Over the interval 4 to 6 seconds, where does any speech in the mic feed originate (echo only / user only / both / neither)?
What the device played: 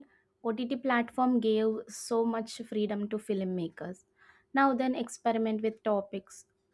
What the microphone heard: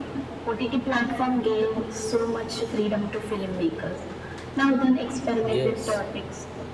both